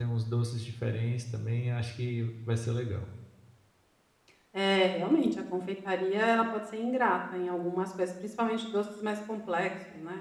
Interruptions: none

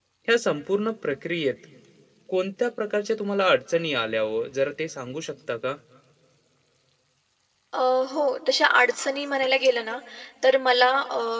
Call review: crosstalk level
none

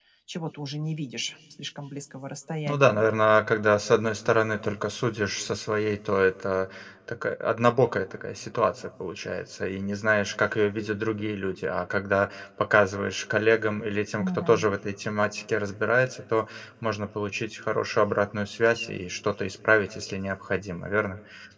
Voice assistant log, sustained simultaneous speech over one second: none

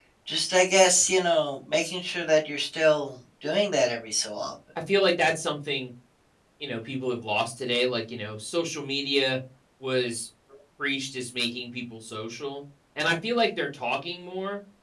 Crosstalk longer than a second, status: none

